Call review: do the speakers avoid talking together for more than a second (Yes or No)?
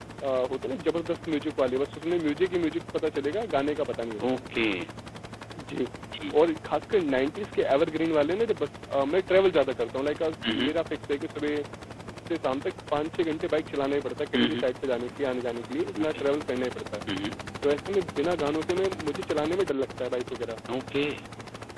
Yes